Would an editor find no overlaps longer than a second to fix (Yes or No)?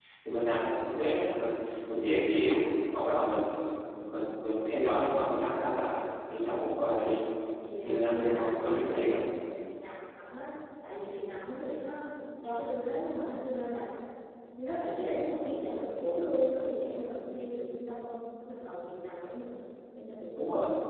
No